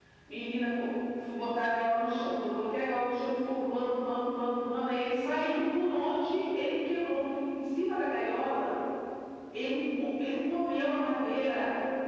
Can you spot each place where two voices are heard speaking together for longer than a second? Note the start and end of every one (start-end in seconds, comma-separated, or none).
none